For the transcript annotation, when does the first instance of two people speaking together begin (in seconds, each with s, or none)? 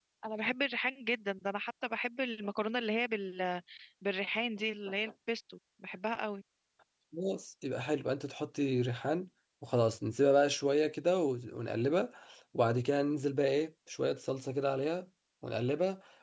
none